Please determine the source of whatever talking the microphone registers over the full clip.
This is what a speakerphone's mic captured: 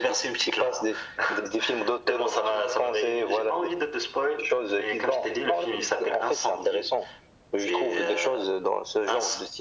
echo only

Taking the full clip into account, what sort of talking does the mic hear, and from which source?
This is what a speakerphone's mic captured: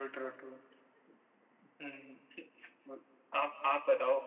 echo only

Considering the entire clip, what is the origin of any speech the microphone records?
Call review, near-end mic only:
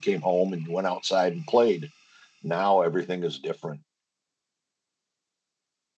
user only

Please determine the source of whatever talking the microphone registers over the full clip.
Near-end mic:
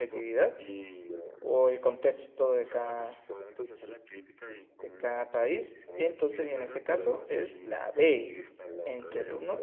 both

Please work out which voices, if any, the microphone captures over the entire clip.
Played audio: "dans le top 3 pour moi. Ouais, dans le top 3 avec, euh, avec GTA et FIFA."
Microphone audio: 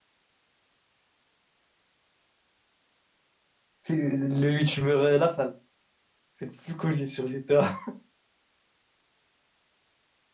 user only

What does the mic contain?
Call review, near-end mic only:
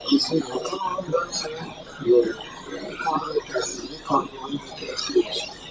echo only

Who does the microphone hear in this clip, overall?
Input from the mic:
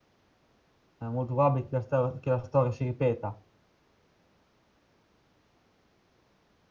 user only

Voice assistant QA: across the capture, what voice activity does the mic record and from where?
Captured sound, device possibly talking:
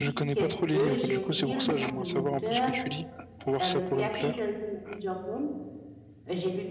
both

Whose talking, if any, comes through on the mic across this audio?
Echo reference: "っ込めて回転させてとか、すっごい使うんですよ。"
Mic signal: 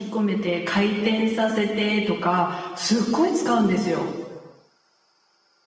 echo only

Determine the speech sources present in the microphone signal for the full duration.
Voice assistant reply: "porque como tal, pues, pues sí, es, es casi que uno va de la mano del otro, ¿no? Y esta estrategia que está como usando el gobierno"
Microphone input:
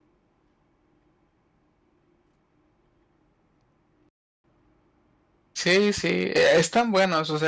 user only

